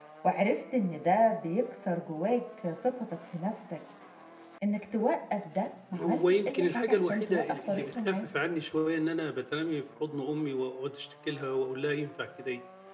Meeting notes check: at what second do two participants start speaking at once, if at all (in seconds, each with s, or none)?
5.9 s